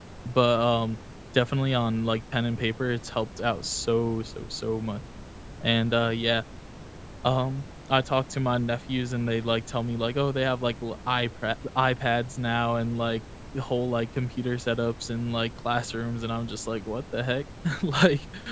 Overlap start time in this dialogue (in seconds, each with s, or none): none